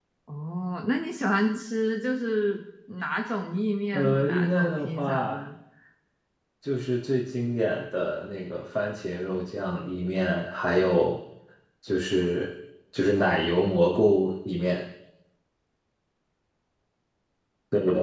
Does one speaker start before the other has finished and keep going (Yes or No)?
Yes